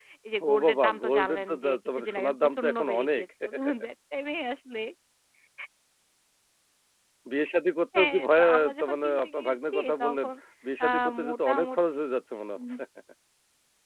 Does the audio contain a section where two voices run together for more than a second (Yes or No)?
Yes